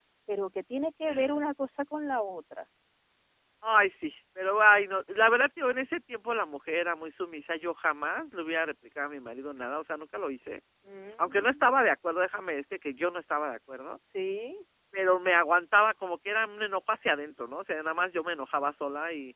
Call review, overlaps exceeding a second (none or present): none